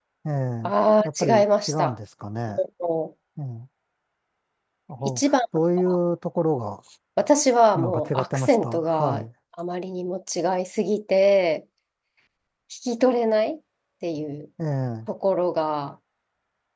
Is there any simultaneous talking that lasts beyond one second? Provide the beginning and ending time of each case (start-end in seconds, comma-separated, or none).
7.8-9.2